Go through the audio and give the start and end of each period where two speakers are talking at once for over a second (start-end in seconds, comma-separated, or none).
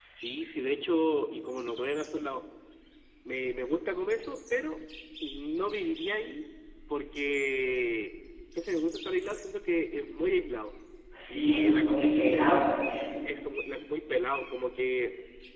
11.3-12.6